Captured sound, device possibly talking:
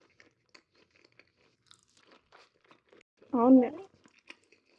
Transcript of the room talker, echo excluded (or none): అవును